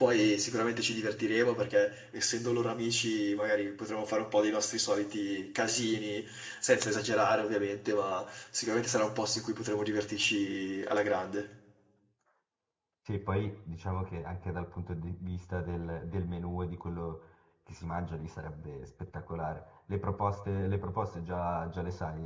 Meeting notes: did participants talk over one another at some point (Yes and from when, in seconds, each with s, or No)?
No